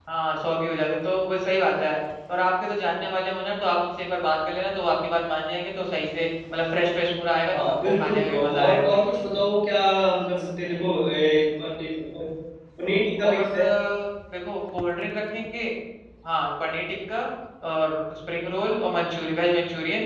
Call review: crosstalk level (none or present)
present